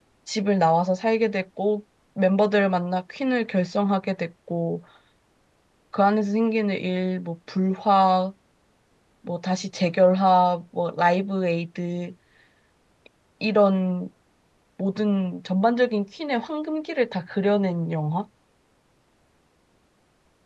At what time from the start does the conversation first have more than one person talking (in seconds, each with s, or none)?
none